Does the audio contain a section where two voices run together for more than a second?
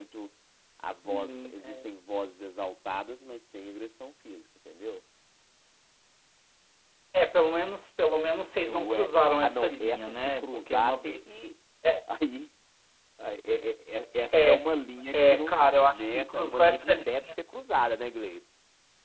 Yes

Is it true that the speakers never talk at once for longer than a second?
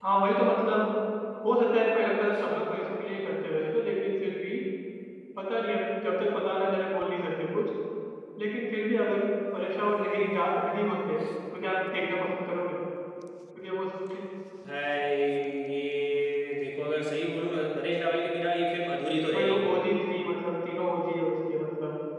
Yes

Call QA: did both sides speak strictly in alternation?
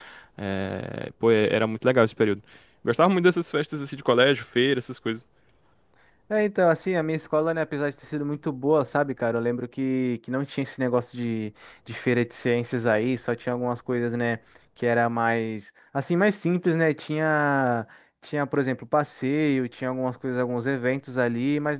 Yes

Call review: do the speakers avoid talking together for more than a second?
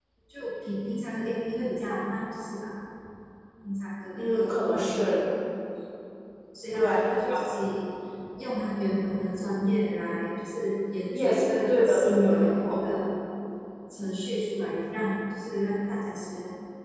No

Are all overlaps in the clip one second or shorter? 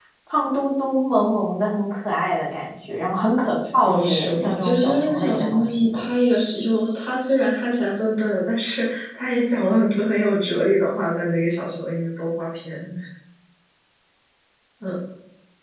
No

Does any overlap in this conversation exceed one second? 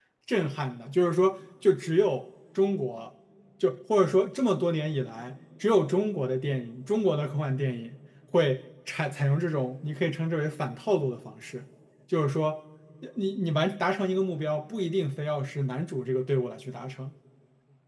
No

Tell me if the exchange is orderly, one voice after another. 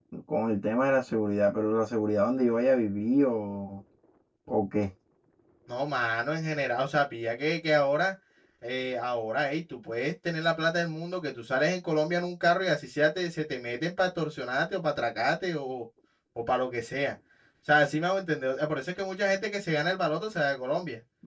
Yes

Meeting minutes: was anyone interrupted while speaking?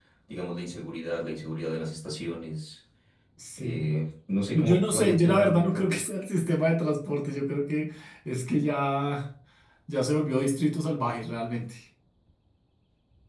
Yes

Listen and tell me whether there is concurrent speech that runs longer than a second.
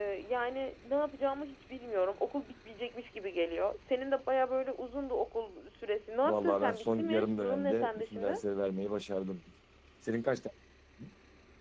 Yes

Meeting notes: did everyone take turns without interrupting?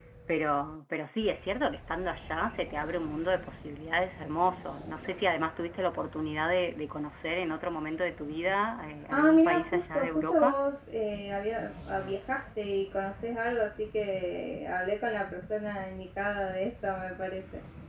No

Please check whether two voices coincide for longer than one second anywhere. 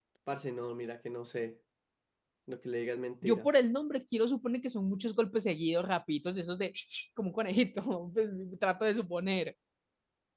No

